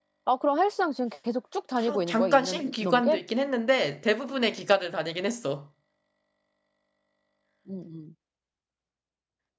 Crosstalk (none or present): present